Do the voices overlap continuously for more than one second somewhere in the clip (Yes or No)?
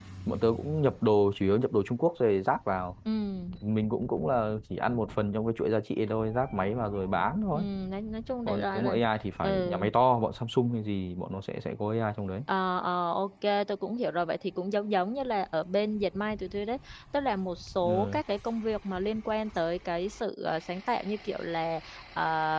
No